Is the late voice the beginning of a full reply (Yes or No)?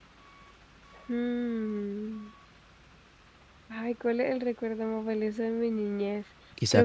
Yes